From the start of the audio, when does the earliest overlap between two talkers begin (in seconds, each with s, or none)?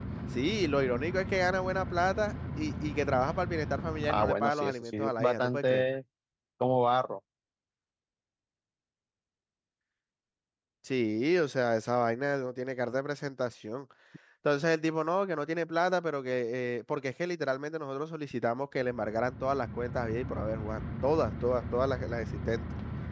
4.0 s